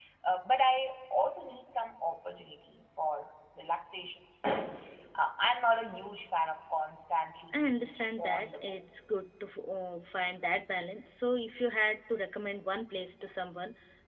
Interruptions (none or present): present